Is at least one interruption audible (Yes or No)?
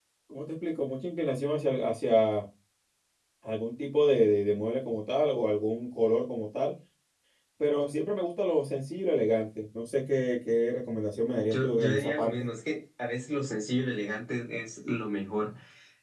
Yes